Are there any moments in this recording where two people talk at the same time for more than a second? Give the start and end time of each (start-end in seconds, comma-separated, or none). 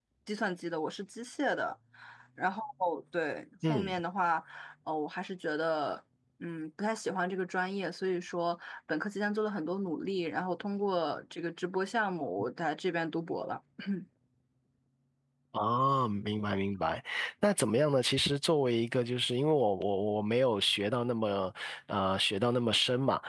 none